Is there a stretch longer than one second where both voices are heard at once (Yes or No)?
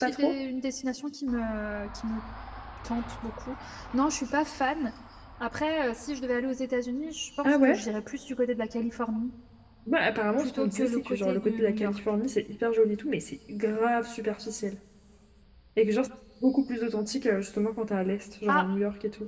Yes